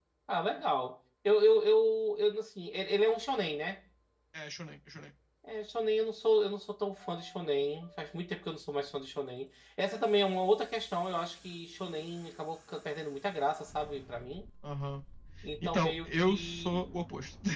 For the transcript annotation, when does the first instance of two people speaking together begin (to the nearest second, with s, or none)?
16 s